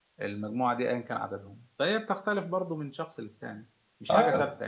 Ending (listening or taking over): taking over